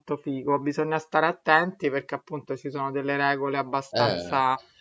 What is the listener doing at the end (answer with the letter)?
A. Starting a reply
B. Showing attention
B